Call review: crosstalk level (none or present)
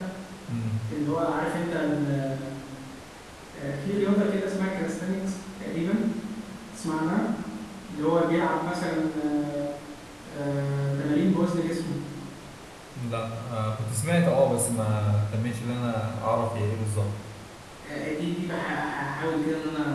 none